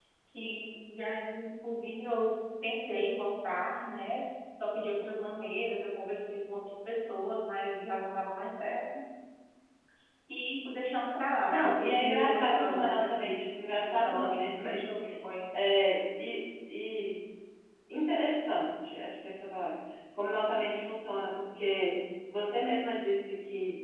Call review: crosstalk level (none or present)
present